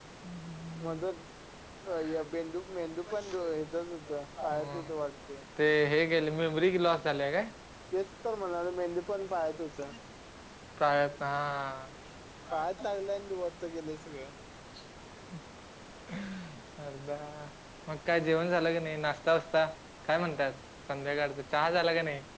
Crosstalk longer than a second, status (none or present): none